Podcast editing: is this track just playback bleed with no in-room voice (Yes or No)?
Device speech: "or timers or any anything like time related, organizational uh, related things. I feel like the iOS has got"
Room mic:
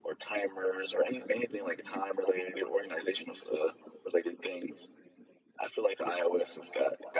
Yes